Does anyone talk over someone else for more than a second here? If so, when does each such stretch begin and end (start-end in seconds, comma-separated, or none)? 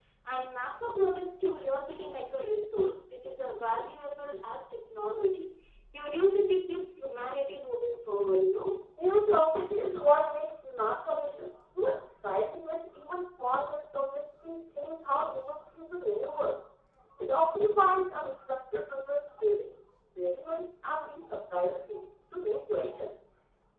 none